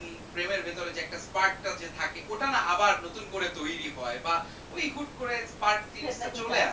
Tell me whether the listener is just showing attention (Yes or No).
No